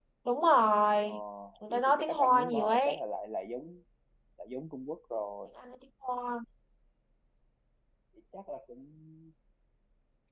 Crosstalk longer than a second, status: present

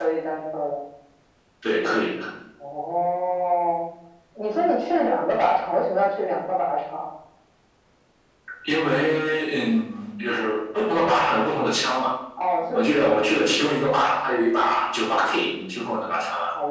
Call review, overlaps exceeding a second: none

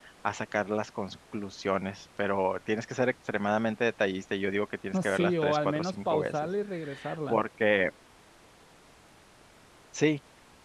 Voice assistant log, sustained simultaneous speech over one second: present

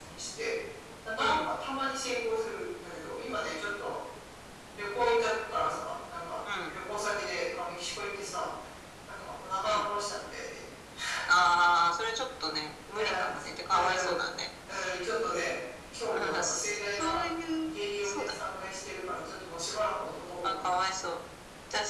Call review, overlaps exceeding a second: present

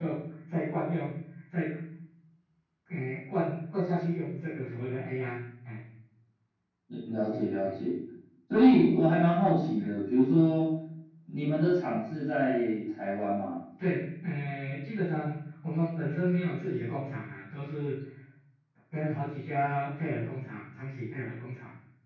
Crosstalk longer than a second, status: none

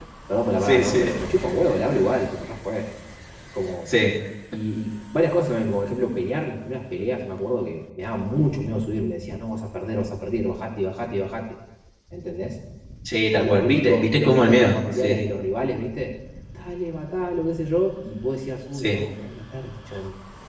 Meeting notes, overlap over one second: present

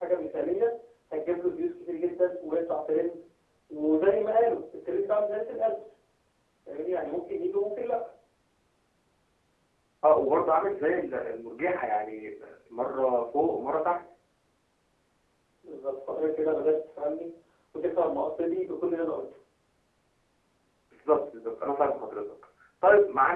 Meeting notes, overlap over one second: none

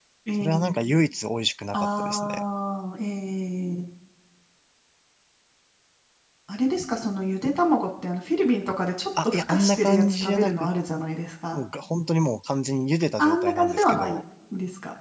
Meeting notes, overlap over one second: present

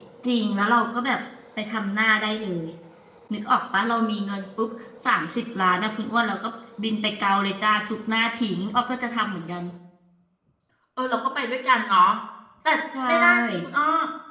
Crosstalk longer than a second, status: none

